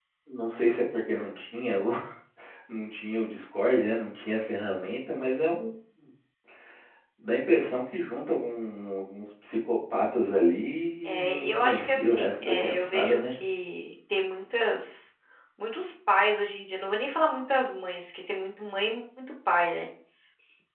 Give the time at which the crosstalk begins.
11.0 s

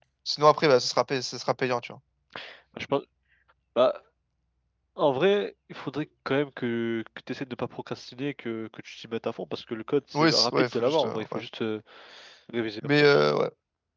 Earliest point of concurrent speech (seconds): 10.1 s

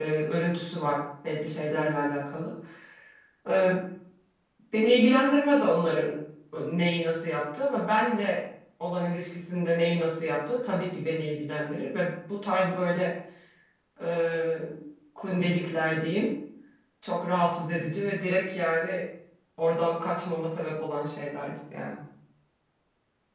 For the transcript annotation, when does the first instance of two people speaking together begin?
none

